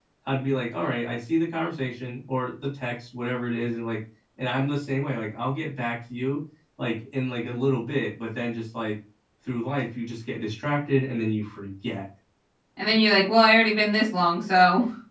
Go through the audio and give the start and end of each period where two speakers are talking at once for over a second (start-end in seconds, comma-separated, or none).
none